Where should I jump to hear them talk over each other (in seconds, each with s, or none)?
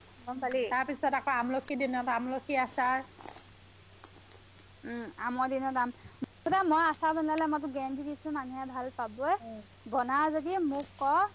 none